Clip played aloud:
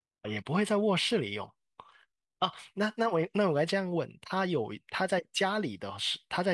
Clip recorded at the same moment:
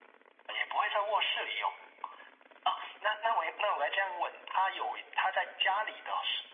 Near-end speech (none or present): none